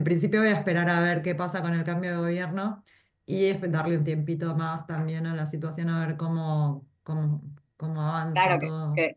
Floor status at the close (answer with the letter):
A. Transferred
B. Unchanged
A